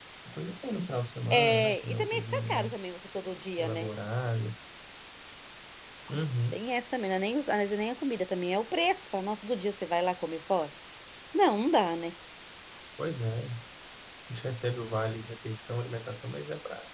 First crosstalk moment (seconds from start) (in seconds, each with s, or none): 1.3 s